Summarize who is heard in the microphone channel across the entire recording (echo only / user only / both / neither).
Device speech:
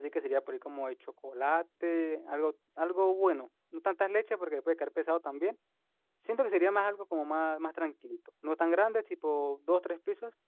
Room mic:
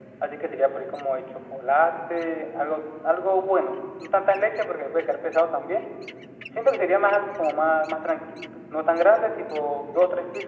echo only